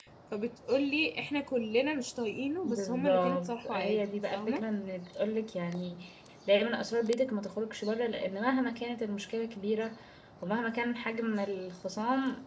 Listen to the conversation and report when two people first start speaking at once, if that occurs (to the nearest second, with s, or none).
3 s